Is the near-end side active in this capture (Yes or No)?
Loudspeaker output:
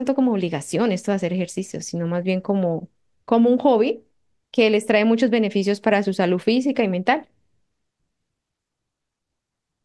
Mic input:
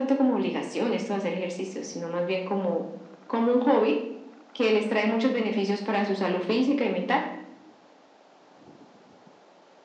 No